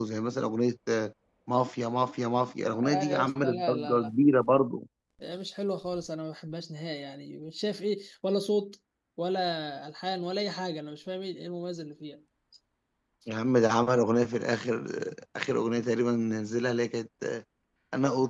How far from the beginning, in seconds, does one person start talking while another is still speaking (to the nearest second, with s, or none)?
3 s